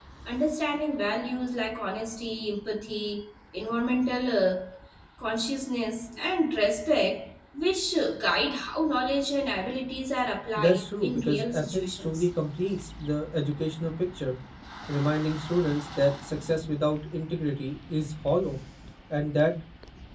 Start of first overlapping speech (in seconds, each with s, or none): 10.6 s